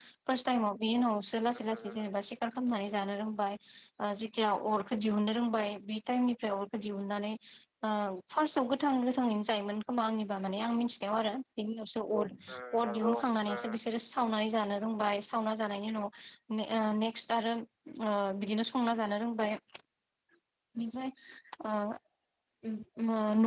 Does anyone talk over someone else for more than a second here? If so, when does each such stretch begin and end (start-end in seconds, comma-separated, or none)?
12.5-13.7